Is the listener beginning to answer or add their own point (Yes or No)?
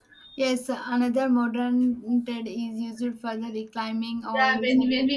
Yes